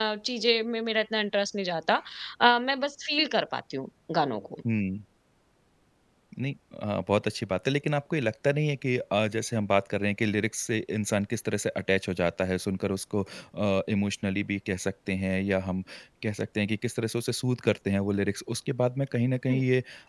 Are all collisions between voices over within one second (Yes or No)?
Yes